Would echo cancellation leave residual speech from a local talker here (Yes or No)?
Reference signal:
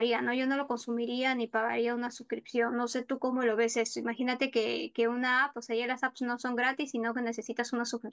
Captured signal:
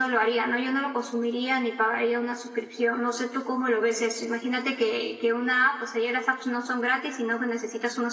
No